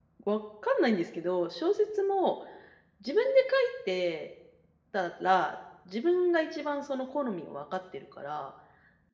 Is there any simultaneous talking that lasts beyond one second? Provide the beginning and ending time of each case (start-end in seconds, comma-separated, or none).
none